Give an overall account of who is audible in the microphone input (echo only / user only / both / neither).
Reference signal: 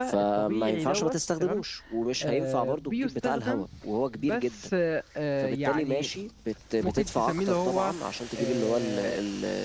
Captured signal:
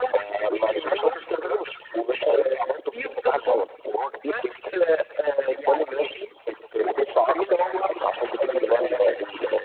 echo only